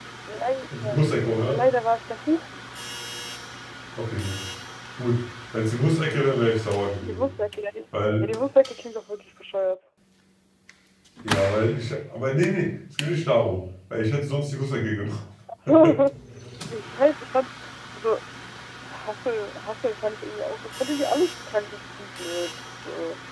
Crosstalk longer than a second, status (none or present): none